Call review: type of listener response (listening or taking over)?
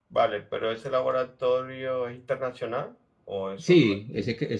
taking over